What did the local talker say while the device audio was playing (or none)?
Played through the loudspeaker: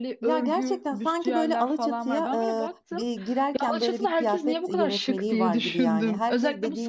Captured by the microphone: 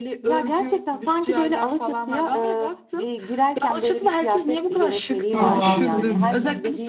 Aa, kesinlikle.